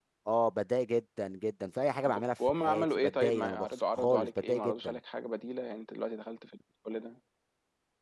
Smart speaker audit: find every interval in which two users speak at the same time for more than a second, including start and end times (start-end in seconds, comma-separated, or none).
2.0-5.0